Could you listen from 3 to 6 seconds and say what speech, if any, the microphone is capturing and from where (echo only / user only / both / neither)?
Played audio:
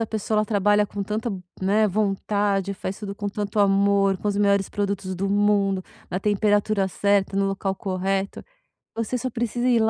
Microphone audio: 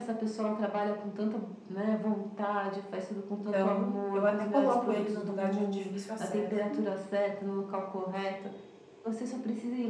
both